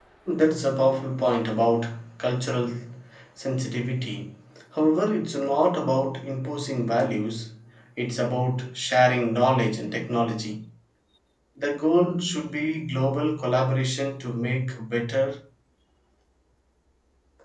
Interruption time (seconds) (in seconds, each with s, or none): none